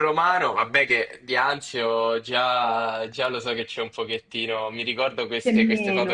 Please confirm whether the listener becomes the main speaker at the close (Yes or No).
No